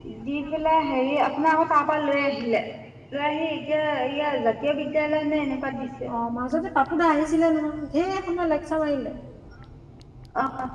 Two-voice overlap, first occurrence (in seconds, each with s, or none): none